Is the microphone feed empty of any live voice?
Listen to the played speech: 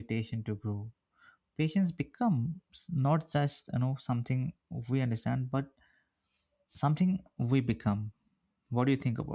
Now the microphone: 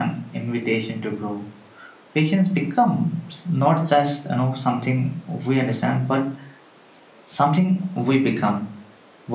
Yes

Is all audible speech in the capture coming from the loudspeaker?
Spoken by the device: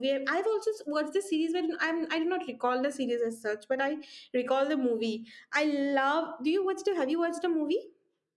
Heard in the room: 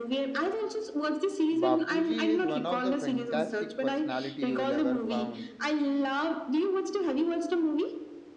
No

